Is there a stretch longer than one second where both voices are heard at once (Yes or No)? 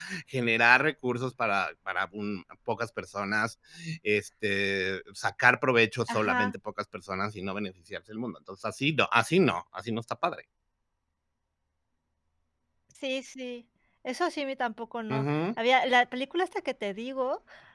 No